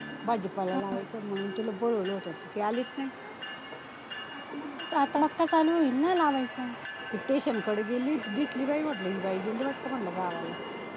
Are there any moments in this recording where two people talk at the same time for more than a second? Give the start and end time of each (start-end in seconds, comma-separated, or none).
none